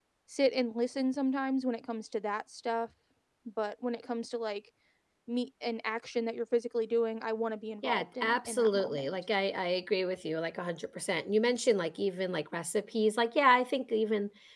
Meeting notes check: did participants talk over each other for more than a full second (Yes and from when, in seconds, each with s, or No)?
Yes, from 7.8 s